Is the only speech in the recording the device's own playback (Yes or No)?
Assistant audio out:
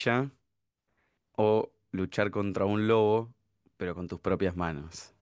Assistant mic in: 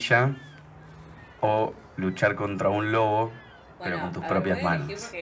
No